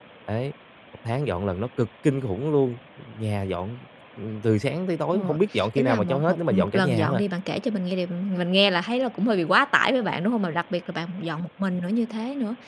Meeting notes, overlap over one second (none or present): present